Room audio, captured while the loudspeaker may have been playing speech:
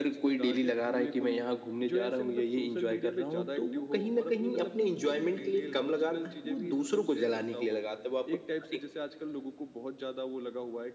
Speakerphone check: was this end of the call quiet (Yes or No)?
Yes